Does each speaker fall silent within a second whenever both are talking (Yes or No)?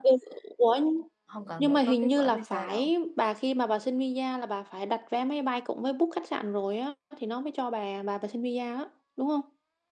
No